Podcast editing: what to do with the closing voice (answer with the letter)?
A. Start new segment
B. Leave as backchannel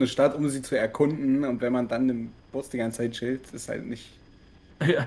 A